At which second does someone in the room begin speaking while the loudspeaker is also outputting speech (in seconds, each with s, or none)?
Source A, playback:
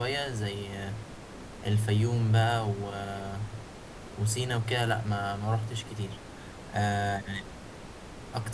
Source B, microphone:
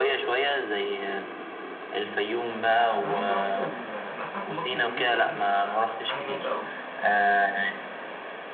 3.0 s